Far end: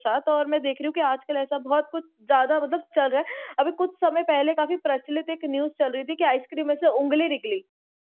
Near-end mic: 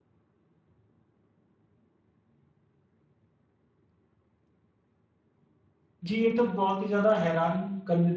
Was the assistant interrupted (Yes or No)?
Yes